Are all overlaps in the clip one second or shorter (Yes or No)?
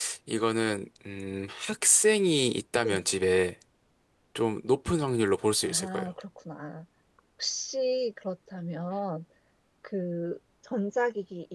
Yes